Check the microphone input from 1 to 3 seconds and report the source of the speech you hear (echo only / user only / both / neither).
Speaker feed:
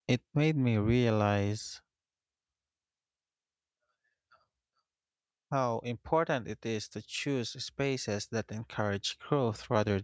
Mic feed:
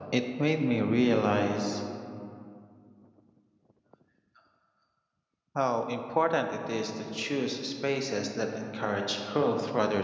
echo only